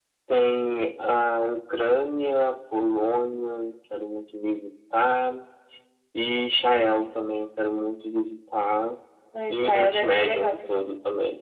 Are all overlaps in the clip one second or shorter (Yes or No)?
No